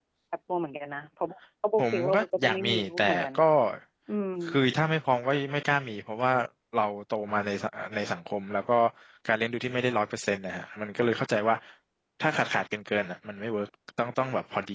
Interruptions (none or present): present